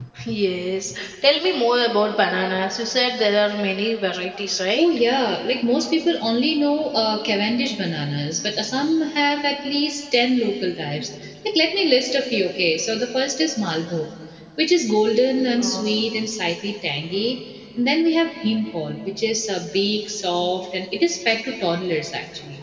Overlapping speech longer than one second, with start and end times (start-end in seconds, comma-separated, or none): none